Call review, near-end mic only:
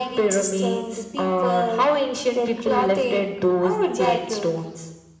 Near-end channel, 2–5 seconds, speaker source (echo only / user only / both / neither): echo only